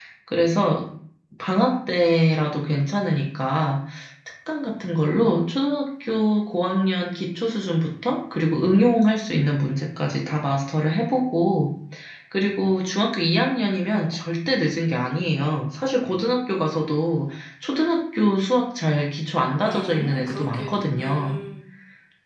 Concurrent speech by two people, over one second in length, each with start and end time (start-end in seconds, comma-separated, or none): 19.6-21.4